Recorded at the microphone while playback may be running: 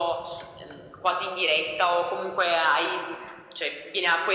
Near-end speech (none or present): none